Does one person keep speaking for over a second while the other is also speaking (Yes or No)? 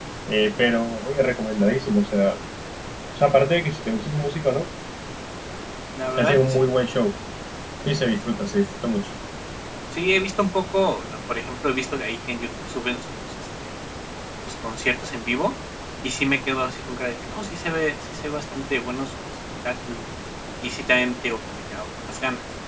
No